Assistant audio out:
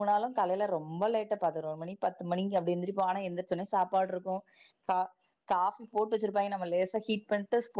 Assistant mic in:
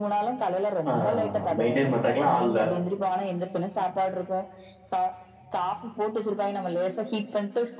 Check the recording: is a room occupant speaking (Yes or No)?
Yes